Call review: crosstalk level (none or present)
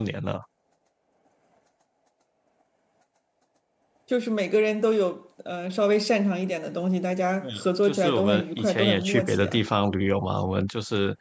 present